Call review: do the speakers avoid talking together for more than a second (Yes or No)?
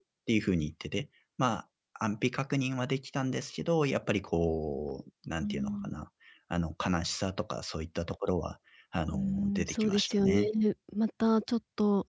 No